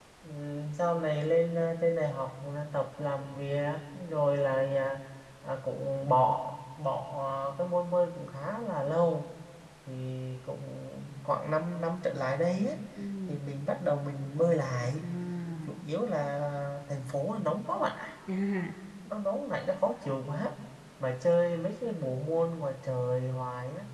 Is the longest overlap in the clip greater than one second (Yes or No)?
No